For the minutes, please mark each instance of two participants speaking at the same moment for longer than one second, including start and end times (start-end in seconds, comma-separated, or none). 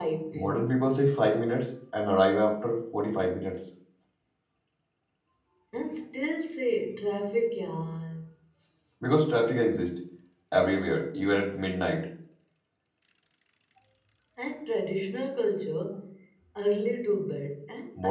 none